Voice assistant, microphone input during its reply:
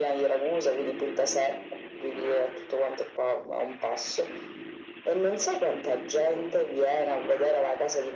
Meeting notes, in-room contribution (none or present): none